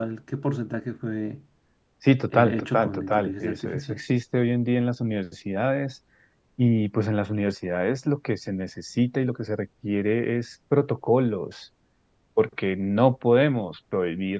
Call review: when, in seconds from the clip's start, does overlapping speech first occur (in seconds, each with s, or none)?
2.3 s